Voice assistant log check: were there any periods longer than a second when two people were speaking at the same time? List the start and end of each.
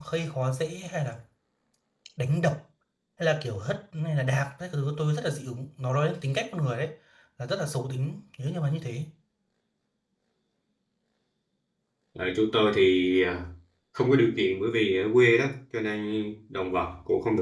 none

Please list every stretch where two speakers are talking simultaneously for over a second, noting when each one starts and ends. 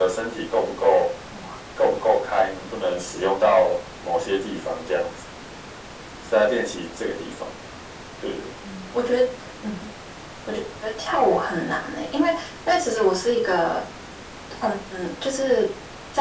none

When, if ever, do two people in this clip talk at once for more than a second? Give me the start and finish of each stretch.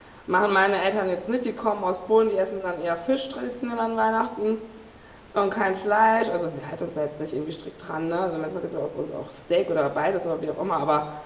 none

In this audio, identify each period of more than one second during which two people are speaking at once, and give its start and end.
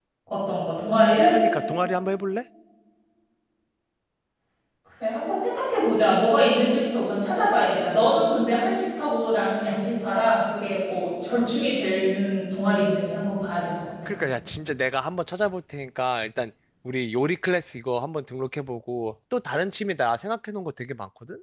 none

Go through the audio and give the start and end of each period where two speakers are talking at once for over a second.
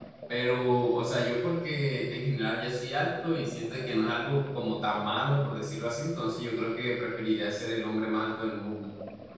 none

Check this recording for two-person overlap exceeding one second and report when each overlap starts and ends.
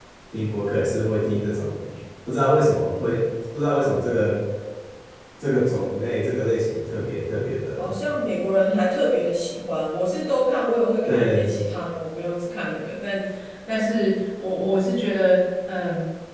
none

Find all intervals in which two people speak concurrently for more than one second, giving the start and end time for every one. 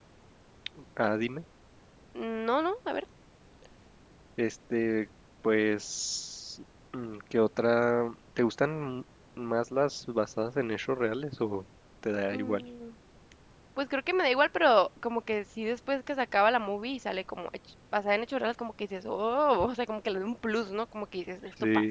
none

